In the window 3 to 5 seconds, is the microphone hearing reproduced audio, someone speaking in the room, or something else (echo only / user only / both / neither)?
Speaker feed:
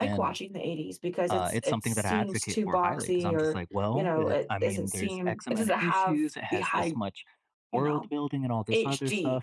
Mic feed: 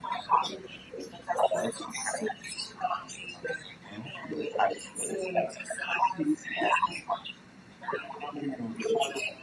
echo only